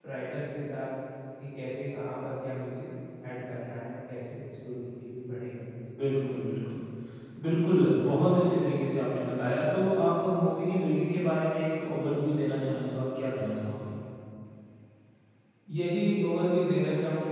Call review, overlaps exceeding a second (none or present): none